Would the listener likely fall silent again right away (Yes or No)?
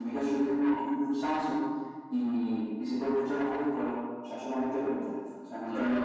No